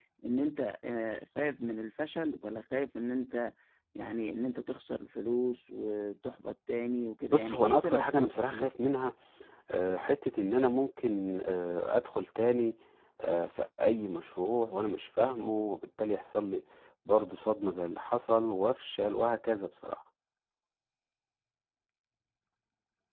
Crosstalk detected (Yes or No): Yes